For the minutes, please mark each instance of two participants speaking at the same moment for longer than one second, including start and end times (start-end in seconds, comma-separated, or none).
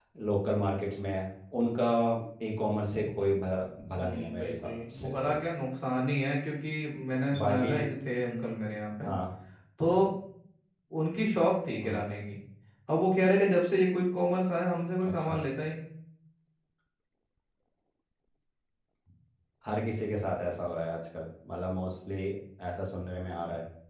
4.0-5.4